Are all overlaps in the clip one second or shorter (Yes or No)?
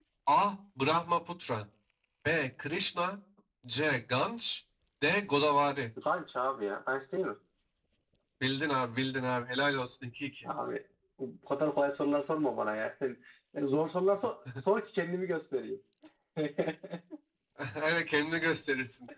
Yes